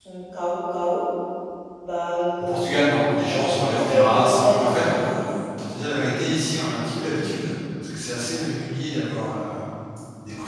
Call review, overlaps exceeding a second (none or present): present